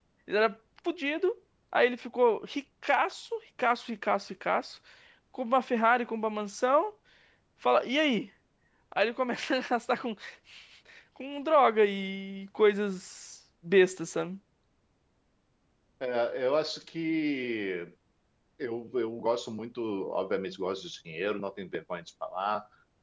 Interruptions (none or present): none